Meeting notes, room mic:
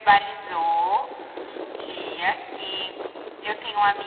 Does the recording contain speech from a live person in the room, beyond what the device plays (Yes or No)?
No